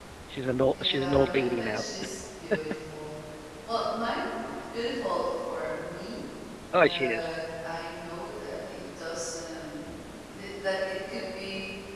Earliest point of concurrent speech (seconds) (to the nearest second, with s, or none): 1 s